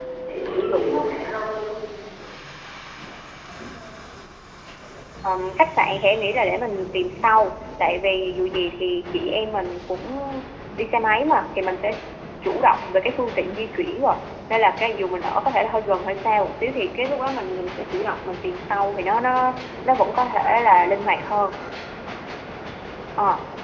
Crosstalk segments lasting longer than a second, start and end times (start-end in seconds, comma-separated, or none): none